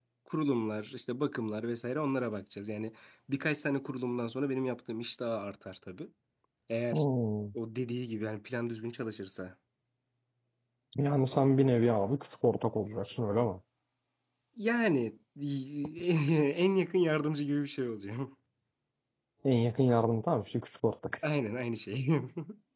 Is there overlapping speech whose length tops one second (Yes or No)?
No